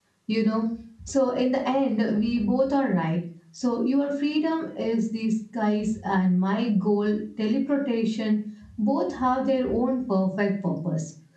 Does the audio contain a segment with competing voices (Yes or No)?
No